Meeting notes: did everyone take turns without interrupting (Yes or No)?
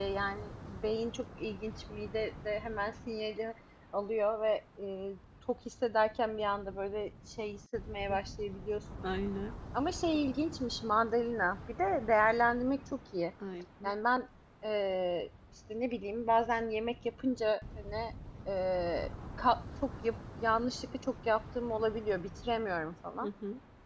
Yes